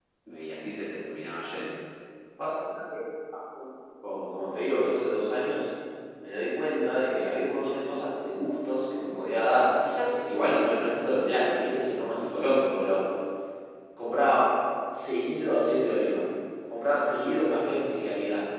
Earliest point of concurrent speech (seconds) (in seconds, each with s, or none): none